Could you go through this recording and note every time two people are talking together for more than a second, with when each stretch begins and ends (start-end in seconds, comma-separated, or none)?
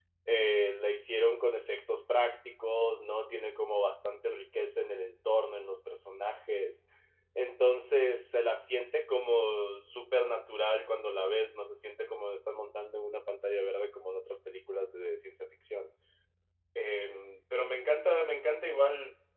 none